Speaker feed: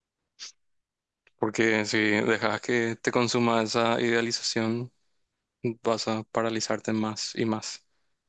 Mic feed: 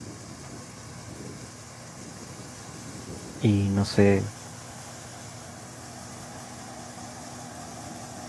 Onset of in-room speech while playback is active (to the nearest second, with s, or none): 3 s